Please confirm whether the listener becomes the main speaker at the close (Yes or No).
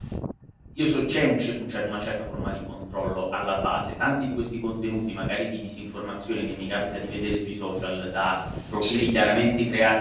No